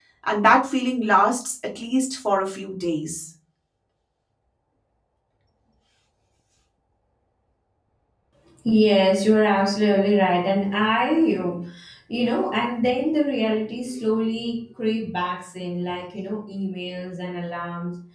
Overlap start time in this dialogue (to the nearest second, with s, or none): none